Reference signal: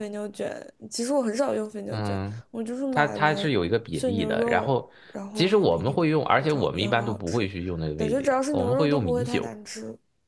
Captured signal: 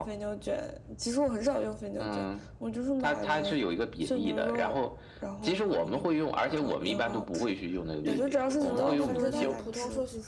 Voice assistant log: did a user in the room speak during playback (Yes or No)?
Yes